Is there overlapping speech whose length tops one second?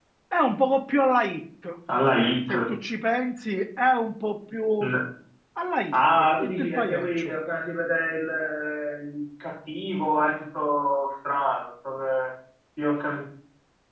Yes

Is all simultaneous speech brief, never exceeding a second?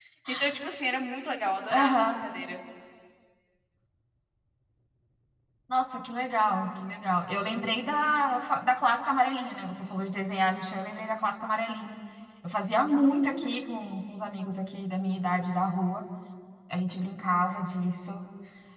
Yes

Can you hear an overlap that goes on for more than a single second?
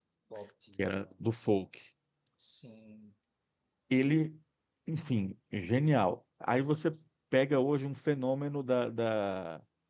No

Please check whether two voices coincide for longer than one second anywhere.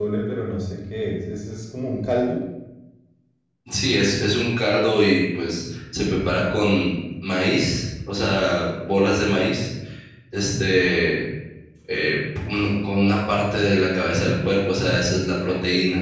No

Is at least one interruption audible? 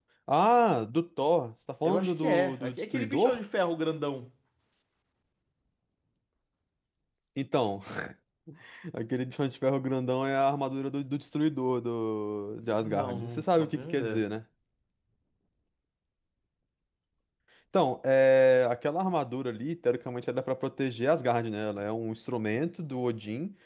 Yes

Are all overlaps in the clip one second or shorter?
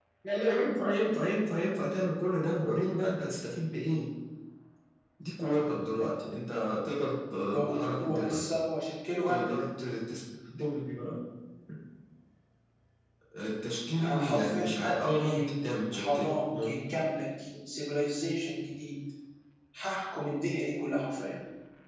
No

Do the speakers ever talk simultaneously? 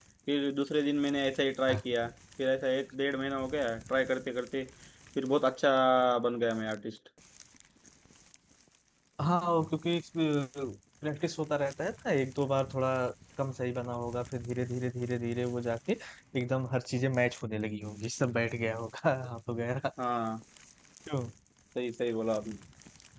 No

